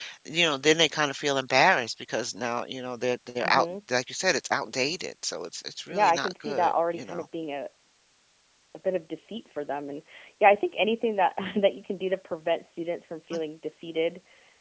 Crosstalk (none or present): present